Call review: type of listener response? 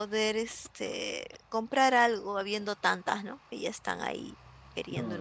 taking over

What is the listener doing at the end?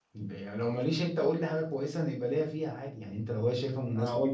taking over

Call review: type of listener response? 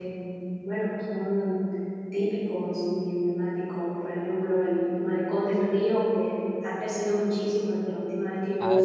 taking over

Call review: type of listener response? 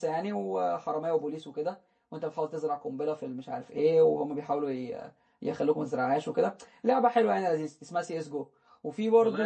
taking over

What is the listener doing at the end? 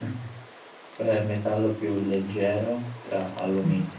listening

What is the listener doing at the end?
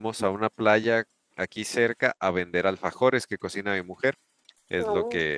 listening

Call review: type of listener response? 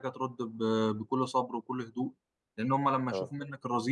listening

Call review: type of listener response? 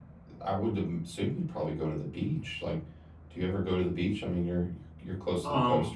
taking over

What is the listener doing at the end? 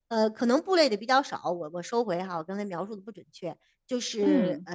listening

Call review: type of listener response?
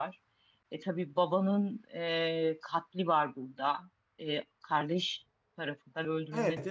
taking over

